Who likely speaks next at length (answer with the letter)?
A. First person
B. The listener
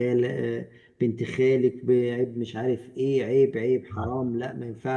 A